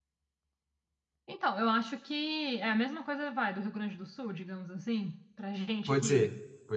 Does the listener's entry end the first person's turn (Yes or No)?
Yes